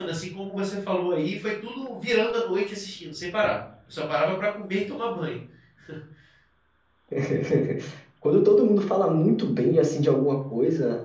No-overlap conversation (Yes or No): Yes